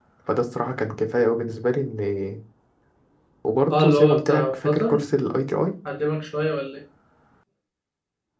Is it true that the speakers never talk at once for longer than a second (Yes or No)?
No